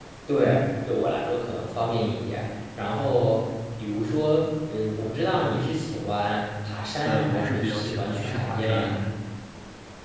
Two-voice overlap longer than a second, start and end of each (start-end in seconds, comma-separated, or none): 7.0-9.0